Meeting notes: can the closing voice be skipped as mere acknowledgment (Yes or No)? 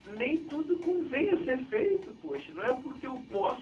Yes